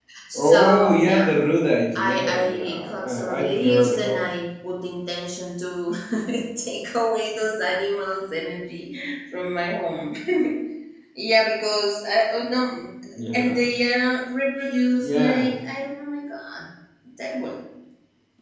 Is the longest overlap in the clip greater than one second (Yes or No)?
Yes